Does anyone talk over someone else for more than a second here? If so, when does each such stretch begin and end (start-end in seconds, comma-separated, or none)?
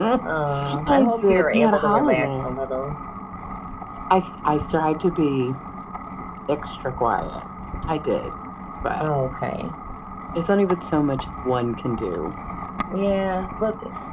0.9-2.5